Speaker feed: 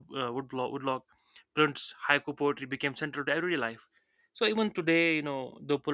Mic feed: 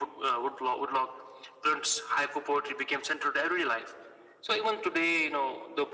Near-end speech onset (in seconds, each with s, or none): none